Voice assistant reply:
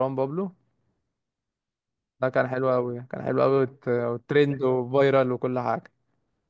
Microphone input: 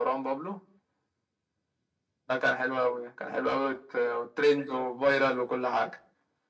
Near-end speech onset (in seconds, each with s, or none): none